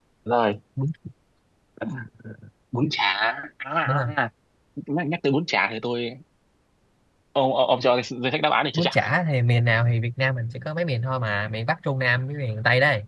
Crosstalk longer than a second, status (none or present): none